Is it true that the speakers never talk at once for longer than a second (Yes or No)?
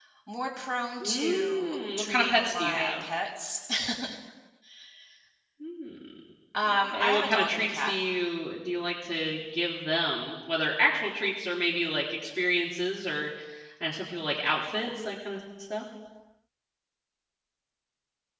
No